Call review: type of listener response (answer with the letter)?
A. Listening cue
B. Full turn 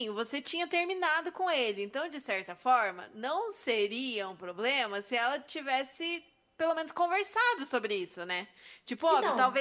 A